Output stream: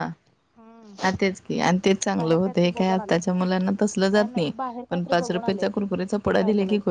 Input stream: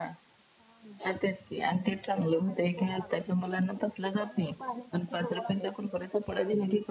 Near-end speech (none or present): none